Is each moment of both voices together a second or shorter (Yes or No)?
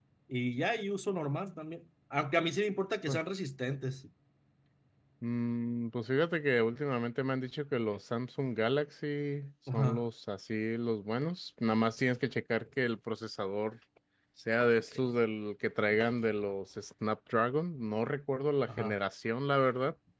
Yes